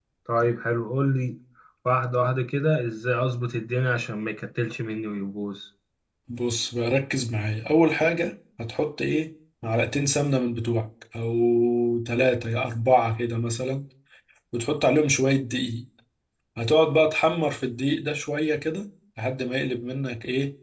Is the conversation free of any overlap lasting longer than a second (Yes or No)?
Yes